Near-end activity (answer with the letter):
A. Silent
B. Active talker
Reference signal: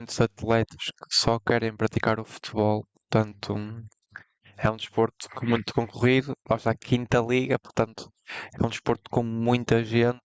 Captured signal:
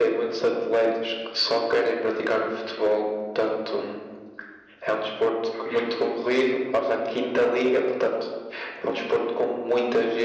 A